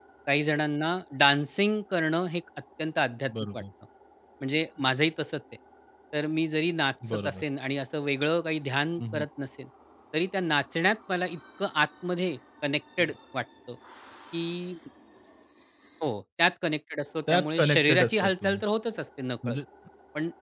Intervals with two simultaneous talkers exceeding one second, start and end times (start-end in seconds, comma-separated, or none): 17.3-18.6